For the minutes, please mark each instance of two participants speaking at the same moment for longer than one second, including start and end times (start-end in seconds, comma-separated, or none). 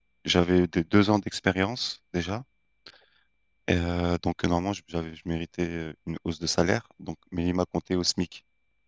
none